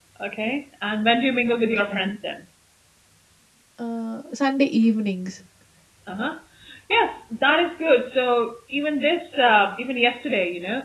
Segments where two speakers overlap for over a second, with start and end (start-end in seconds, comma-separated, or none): none